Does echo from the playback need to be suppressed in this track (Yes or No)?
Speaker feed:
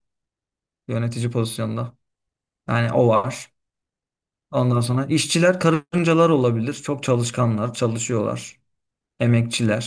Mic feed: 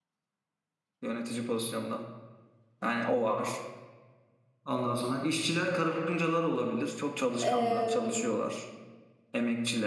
Yes